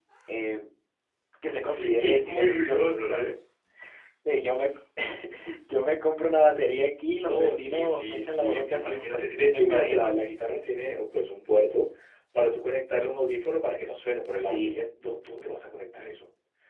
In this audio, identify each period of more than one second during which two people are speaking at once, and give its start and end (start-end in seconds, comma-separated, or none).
1.6-3.3, 7.2-10.2